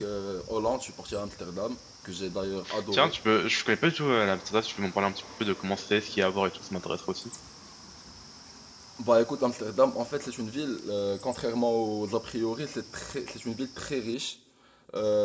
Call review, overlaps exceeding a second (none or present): none